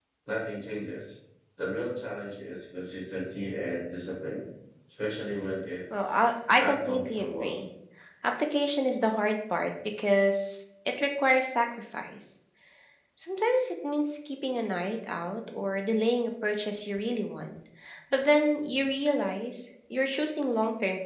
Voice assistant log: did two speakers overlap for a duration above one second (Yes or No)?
Yes